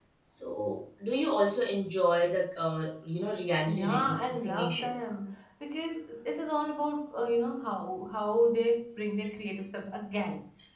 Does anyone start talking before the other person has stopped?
Yes, from 3.7 s

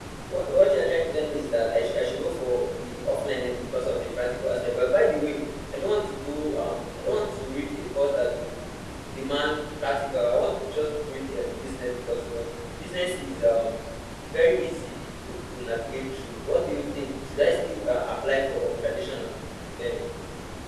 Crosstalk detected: No

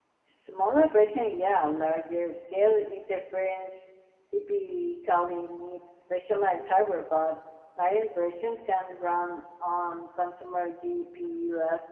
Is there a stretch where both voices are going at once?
No

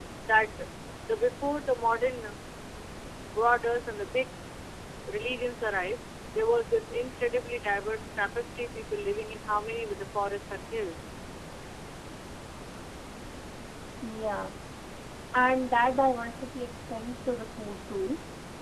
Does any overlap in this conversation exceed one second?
No

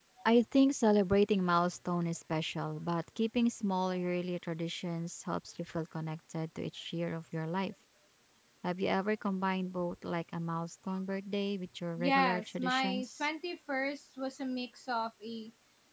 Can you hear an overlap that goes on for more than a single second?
Yes, from 12.0 s

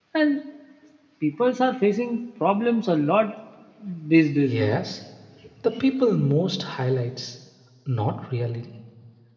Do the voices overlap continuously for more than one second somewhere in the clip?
No

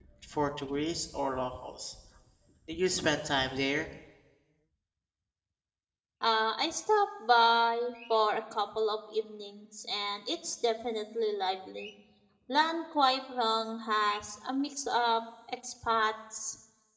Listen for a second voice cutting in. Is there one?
No

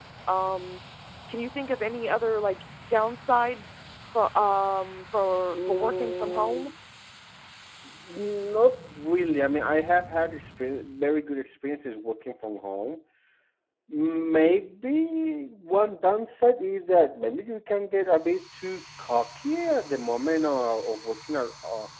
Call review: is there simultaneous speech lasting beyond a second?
Yes, from 5.5 s

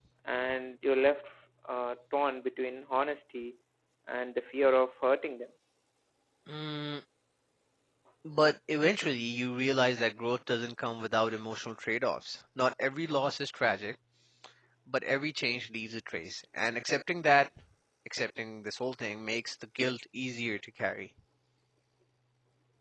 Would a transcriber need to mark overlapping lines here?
No

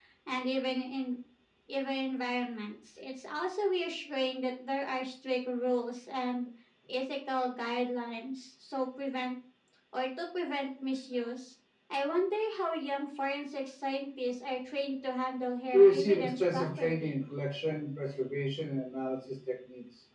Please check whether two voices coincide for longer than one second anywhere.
Yes, from 15.7 s

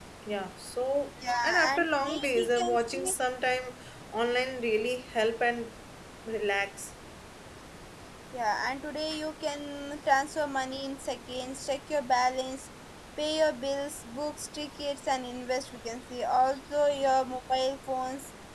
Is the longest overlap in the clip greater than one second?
Yes, from 1.2 s

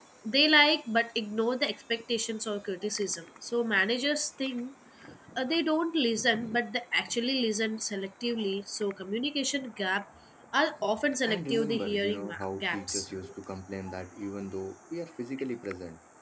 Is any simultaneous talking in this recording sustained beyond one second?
Yes, from 11.3 s

